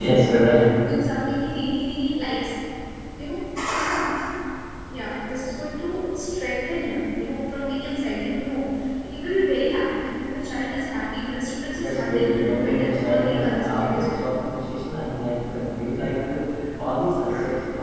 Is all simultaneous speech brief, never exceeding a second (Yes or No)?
No